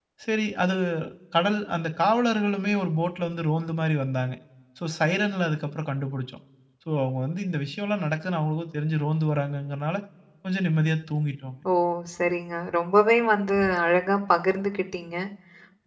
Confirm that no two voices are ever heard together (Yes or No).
Yes